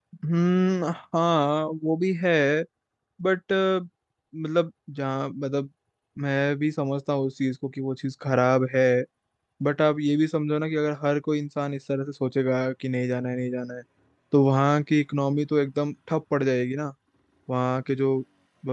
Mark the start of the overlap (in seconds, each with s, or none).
none